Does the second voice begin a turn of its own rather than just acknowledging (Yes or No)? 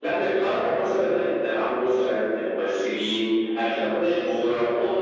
Yes